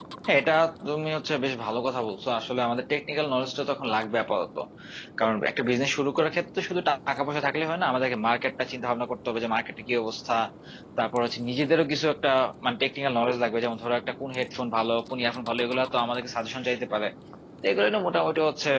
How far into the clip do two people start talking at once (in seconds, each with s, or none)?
none